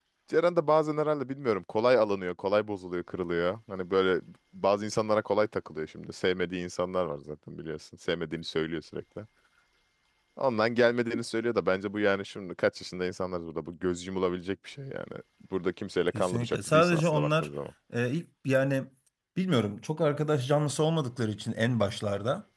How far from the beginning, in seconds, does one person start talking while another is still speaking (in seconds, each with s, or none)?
16.1 s